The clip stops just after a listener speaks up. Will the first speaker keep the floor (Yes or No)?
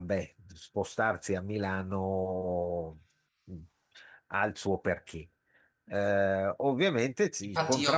No